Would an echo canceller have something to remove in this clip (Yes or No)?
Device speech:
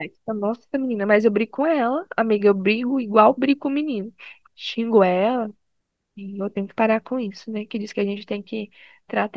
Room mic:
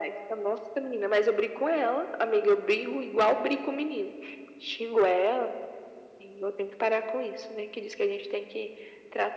Yes